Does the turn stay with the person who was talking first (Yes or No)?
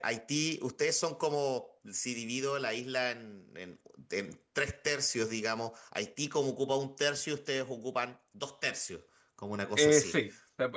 No